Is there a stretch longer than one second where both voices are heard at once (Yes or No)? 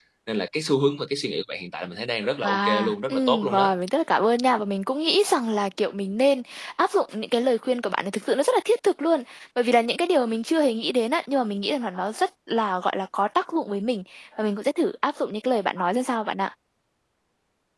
Yes